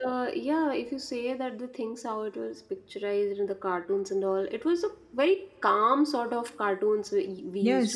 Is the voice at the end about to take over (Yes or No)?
Yes